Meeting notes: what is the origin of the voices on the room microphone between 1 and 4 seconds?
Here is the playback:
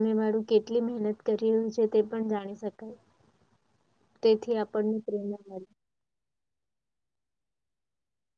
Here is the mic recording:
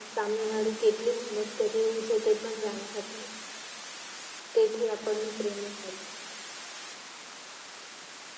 echo only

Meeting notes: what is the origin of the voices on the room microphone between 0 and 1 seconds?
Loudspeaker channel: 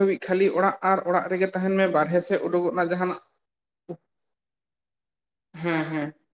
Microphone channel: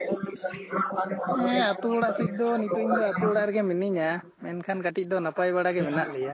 echo only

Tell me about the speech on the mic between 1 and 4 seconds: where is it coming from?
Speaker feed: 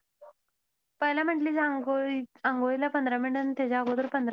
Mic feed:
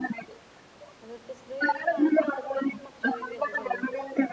both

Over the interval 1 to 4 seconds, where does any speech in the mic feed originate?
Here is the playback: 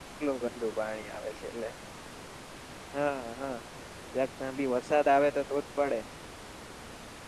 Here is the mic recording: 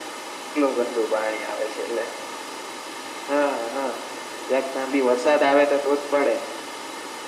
echo only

